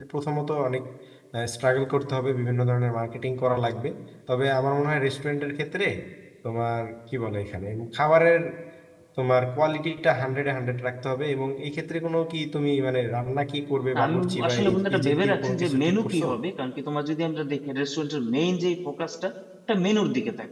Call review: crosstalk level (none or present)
present